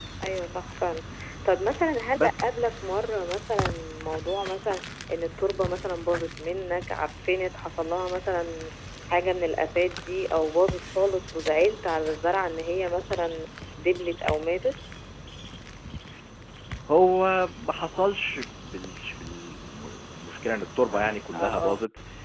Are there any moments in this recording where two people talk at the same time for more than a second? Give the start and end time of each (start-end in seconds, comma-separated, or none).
none